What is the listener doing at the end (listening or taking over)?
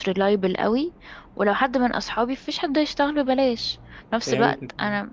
listening